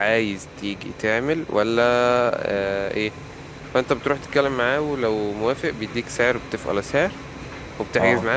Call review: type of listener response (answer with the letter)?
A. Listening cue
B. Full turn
A